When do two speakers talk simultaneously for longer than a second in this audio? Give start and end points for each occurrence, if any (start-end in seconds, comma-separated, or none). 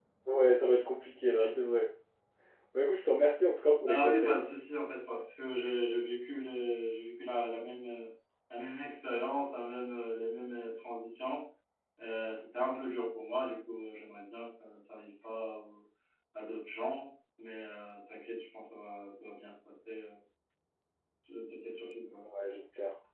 none